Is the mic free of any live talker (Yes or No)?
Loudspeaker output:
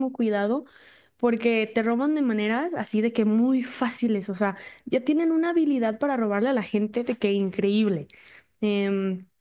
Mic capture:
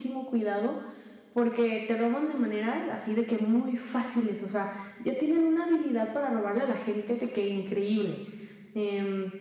Yes